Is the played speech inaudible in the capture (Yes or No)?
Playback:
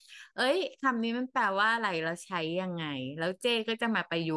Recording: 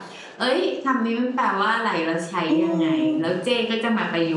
No